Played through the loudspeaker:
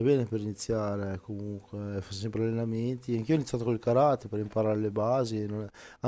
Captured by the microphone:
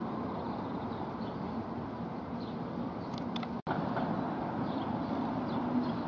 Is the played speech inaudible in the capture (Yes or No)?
Yes